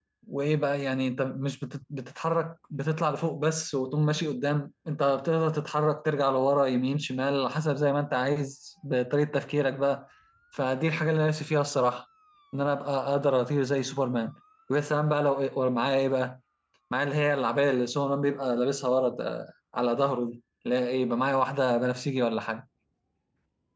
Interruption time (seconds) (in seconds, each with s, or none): none